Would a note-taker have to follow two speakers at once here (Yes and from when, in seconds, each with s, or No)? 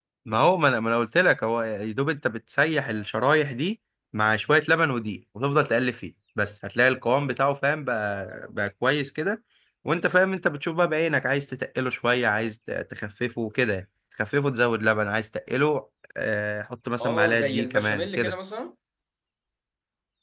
Yes, from 17.0 s